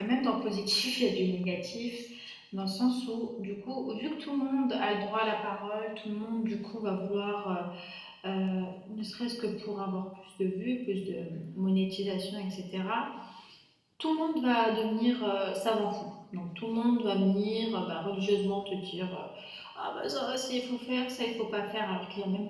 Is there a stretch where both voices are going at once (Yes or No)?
No